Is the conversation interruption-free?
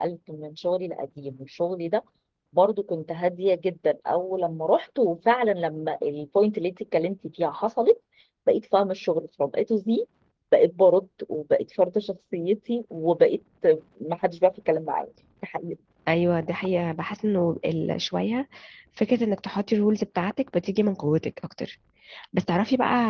Yes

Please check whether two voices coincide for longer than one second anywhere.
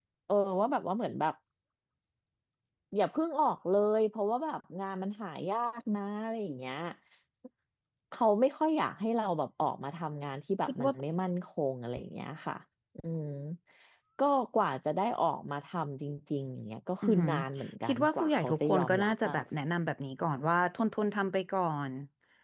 Yes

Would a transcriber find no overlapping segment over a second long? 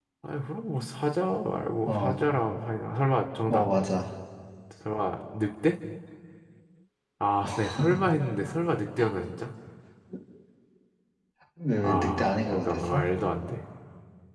No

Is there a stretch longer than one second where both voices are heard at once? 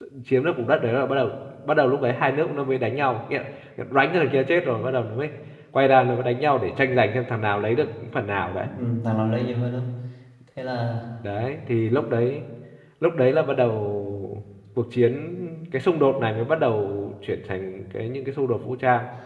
No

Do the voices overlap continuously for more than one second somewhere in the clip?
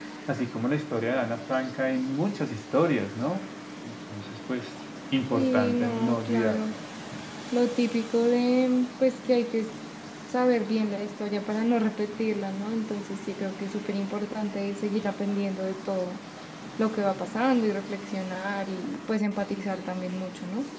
Yes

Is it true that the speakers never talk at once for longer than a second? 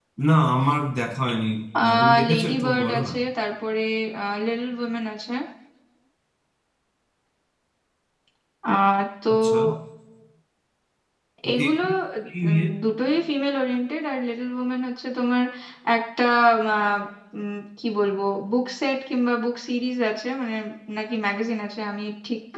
No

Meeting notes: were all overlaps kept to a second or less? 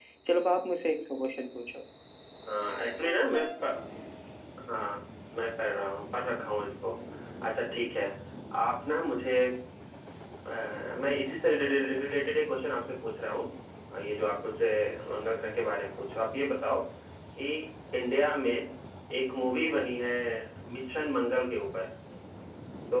Yes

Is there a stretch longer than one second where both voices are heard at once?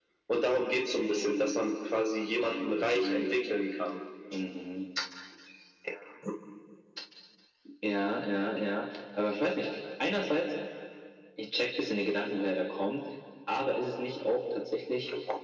No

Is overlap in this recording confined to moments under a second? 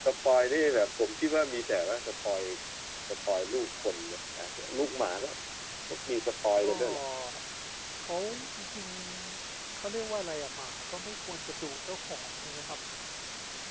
Yes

